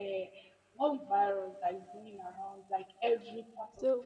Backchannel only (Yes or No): Yes